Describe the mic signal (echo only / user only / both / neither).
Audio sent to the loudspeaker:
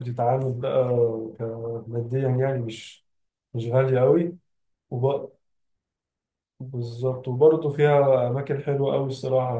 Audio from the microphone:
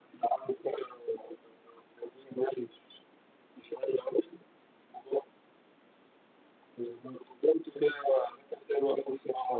echo only